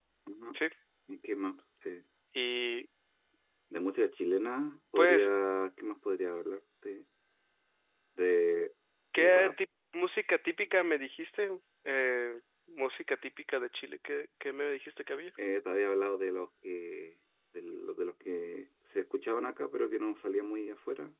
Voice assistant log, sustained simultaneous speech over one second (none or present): none